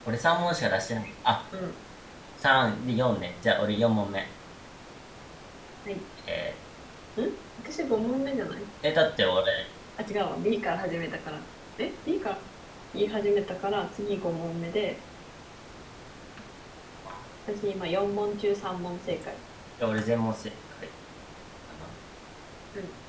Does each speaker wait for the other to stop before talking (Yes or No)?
Yes